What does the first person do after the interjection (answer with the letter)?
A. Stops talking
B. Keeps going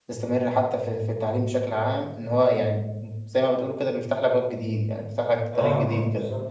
A